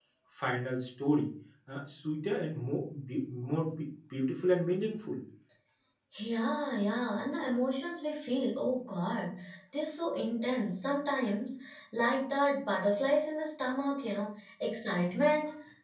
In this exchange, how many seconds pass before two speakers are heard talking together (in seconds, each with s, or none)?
none